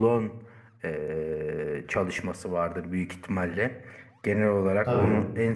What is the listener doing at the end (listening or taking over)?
listening